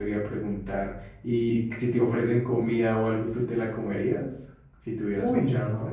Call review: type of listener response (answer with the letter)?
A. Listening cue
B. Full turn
B